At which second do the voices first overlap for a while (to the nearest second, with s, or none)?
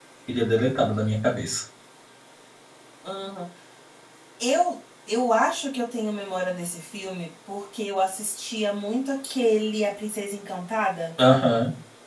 none